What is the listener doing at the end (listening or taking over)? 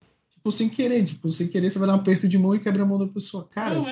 listening